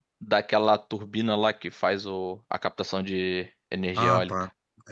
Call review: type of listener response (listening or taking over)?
taking over